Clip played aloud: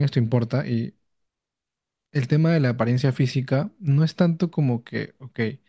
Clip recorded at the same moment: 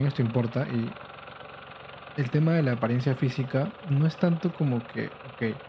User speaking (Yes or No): No